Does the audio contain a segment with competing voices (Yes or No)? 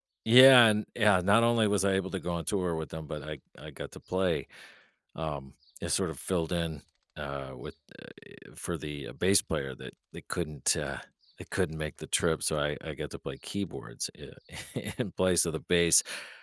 No